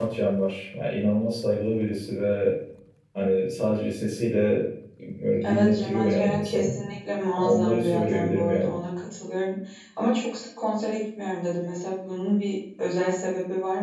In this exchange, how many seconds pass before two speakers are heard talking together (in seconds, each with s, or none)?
5.4 s